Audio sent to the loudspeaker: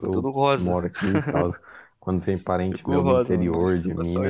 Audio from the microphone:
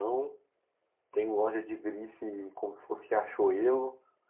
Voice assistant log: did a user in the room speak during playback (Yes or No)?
Yes